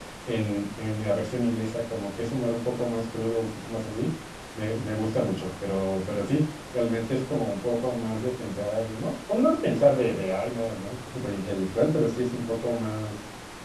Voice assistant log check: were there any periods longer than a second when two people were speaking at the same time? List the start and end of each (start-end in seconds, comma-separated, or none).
none